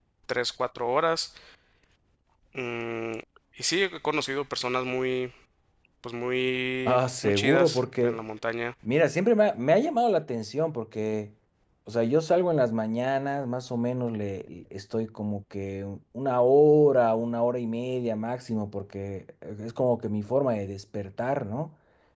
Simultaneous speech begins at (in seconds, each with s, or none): 6.8 s